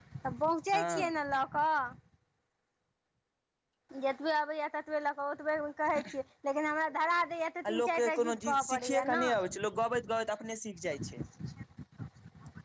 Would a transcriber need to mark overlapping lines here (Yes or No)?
Yes